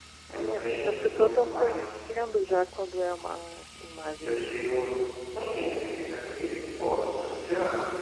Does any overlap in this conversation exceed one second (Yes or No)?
Yes